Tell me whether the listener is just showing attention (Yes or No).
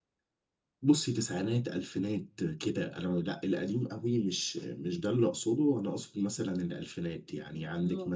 Yes